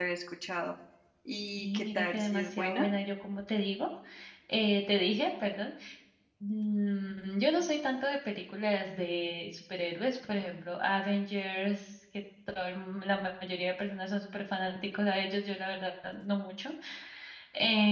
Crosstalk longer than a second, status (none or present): present